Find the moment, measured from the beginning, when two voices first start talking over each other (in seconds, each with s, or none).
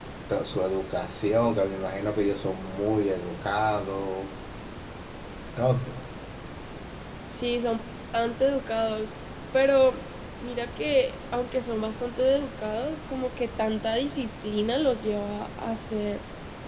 none